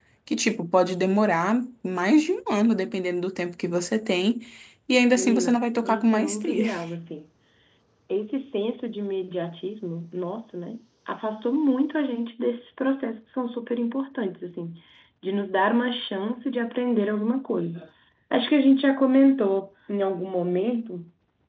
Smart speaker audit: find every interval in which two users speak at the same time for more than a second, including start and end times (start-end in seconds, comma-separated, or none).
5.2-6.7